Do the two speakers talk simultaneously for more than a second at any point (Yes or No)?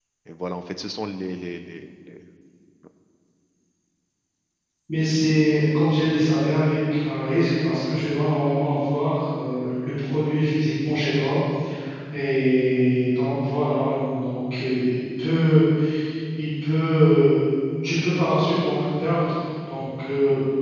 No